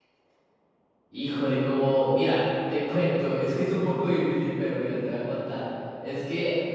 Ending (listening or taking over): listening